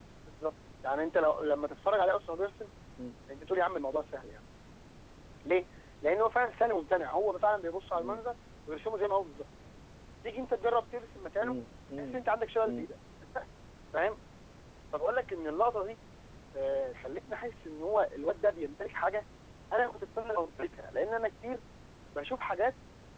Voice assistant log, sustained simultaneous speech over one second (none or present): none